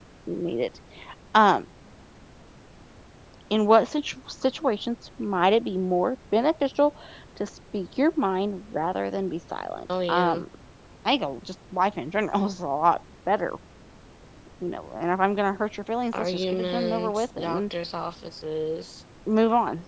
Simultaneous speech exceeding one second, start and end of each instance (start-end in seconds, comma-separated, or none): 16.1-17.6